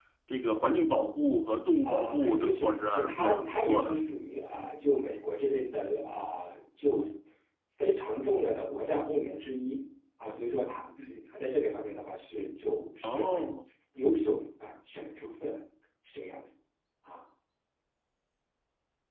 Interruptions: present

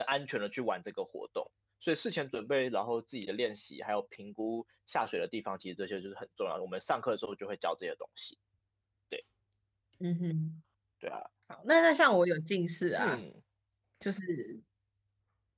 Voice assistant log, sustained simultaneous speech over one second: none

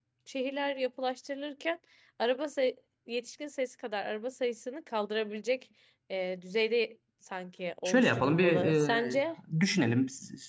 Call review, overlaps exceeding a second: present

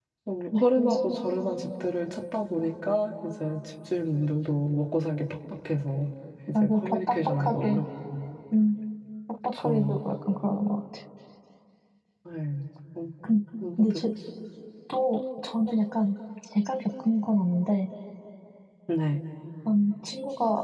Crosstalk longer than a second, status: present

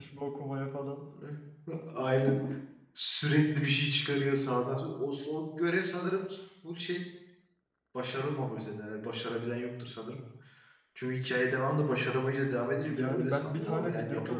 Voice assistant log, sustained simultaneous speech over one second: present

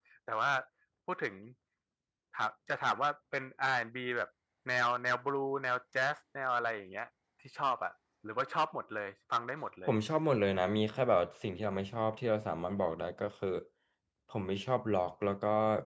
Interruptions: none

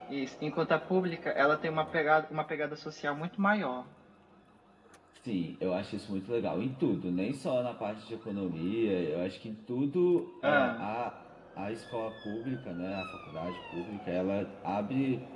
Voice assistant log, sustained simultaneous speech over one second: none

